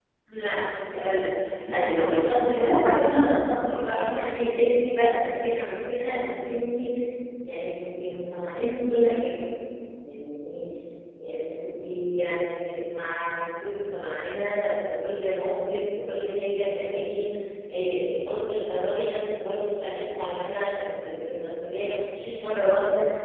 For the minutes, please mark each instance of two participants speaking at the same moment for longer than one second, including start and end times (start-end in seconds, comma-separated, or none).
1.7-3.4